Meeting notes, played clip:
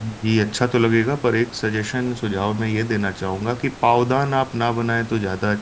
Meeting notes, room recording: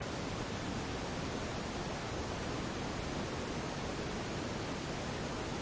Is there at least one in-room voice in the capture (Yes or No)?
No